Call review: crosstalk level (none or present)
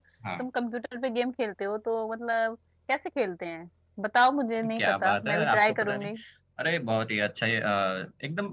present